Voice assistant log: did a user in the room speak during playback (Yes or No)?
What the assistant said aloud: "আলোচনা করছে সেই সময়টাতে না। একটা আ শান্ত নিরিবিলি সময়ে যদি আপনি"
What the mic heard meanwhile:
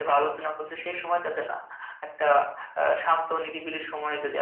No